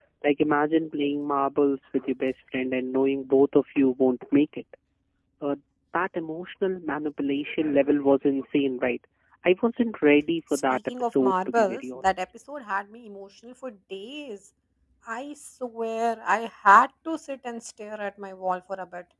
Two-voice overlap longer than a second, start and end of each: 10.5-12.2

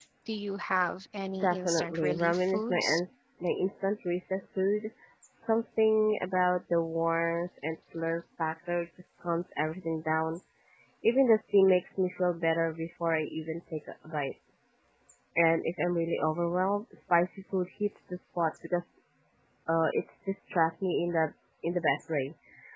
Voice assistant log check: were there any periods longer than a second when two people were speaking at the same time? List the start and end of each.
1.4-3.0

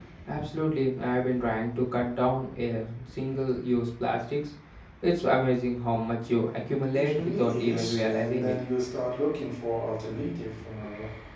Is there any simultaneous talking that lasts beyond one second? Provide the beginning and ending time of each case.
7.0-8.6

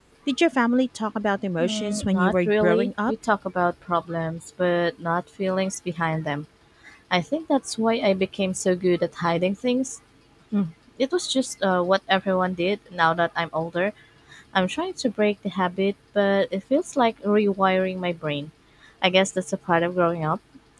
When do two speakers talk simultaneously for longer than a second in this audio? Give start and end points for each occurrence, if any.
1.6-3.1

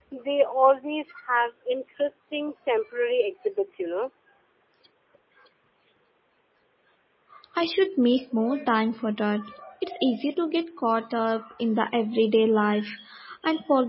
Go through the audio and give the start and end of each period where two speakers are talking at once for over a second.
none

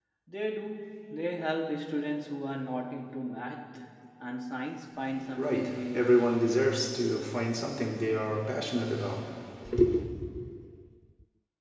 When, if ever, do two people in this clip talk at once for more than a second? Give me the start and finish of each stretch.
5.4-6.8

